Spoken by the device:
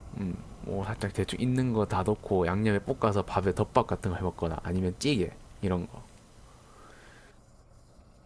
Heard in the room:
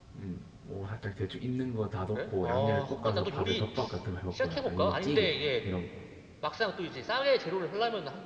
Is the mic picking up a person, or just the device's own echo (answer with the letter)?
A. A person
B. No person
A